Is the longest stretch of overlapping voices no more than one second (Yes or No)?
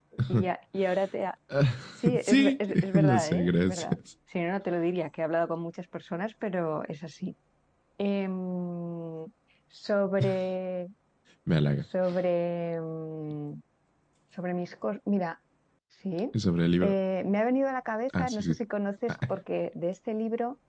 No